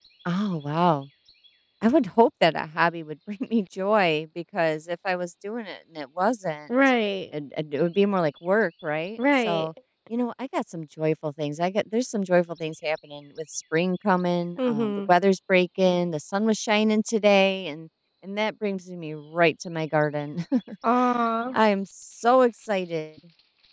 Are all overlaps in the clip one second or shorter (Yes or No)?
Yes